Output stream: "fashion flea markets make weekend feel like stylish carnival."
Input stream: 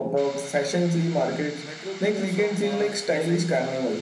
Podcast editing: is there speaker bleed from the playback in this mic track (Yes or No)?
Yes